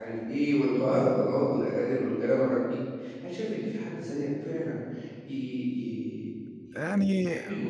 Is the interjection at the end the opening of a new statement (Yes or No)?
No